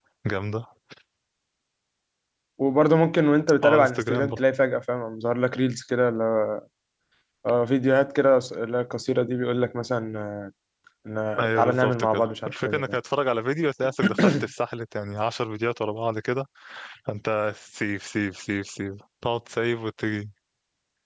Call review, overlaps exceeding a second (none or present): present